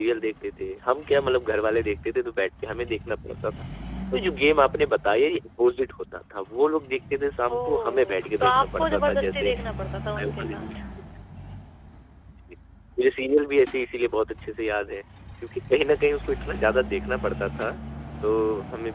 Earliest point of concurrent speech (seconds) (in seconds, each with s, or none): 7.6 s